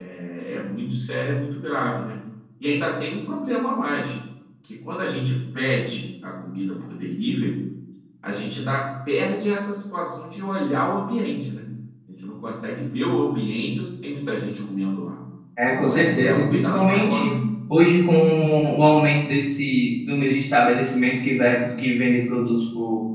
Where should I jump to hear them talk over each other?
15.7 s

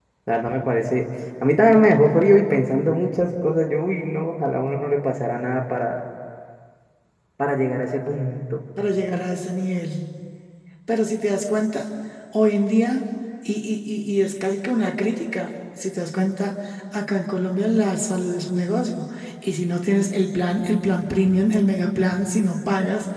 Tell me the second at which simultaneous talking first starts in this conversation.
none

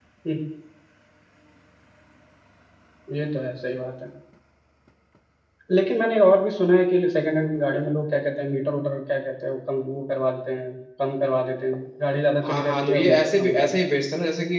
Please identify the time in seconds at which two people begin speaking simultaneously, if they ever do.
12.4 s

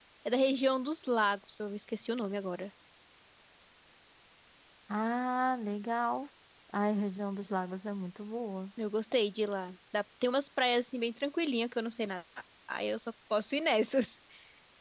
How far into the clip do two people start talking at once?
none

